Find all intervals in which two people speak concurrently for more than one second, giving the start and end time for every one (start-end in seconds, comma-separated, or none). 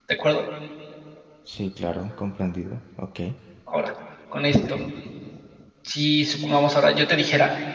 none